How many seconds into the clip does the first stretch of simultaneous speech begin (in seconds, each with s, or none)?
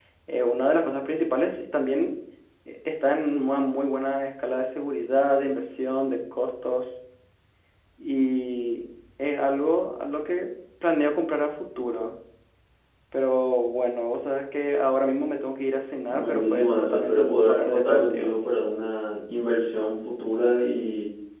16.1 s